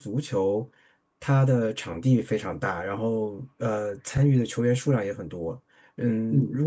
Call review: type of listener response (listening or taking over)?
listening